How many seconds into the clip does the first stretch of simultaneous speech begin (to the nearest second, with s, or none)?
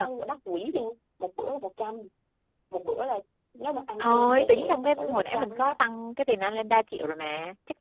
4 s